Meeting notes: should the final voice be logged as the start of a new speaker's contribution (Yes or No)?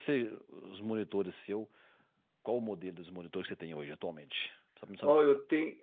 Yes